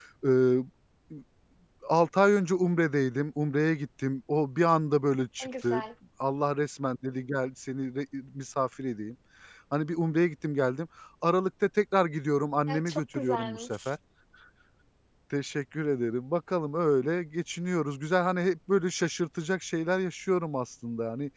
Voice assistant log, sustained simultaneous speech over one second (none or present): present